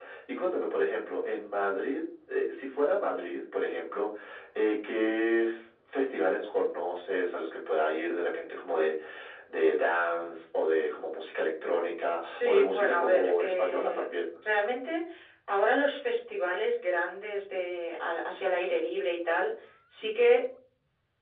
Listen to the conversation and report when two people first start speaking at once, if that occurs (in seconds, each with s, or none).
12.2 s